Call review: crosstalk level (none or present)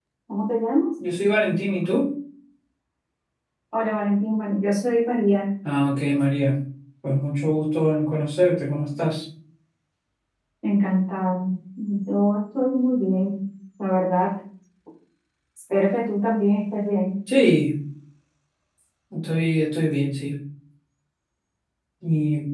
none